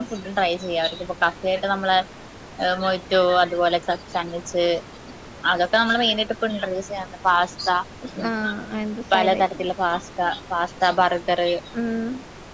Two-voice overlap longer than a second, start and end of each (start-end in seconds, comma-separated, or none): none